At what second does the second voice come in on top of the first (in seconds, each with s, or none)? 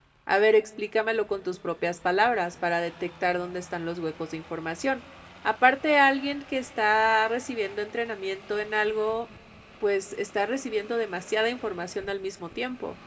none